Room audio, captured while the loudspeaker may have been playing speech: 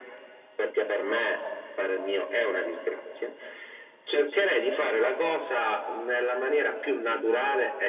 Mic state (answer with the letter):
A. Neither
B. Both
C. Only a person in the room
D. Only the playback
D